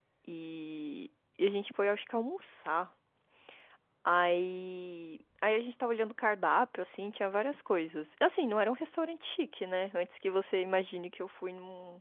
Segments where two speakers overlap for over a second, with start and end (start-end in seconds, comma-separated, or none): none